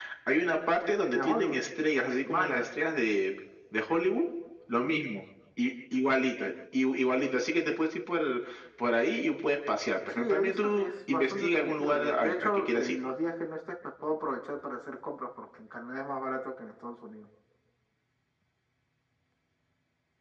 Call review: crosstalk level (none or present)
present